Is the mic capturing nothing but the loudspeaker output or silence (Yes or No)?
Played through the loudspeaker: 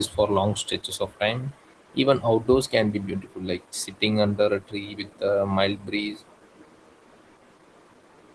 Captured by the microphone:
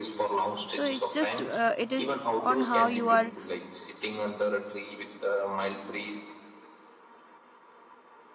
No